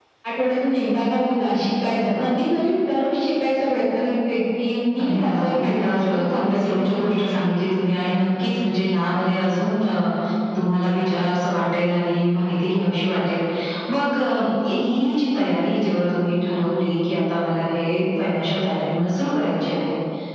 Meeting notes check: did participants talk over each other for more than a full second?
Yes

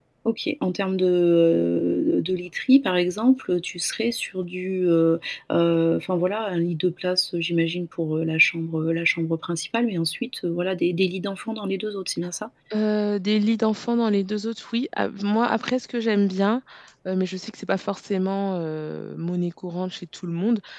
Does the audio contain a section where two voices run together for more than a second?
No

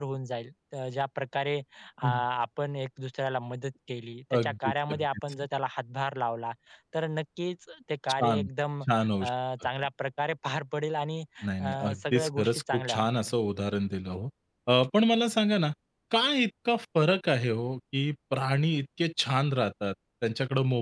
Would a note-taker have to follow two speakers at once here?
Yes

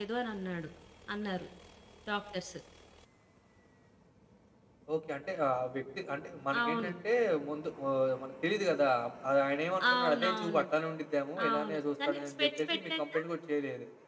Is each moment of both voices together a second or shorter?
No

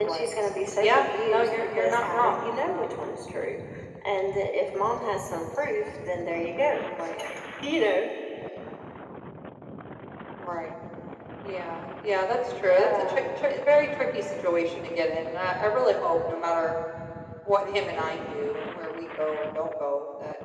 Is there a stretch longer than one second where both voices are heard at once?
Yes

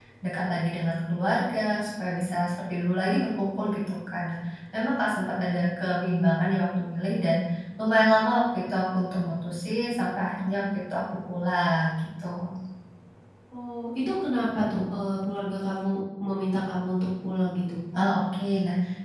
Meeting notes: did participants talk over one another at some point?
No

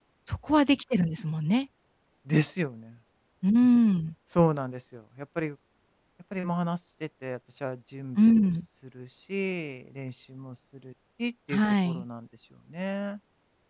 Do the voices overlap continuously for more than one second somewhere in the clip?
No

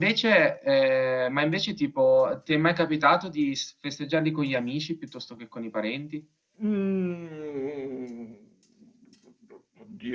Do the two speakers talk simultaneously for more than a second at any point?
No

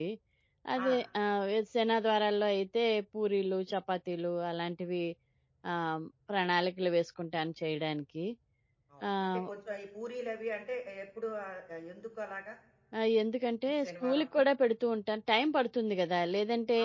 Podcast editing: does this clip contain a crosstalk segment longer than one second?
No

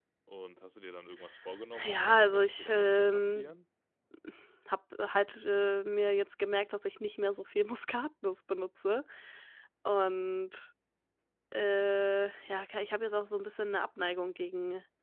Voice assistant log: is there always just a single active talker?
No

